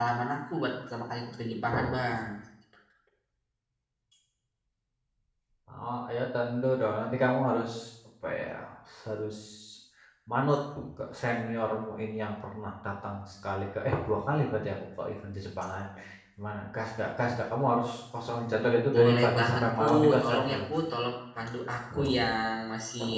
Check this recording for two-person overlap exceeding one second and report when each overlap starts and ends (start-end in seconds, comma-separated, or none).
18.9-20.6